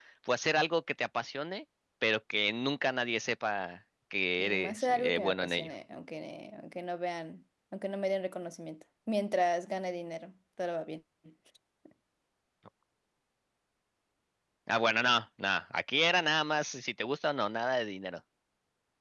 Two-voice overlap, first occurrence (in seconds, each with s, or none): 4.4 s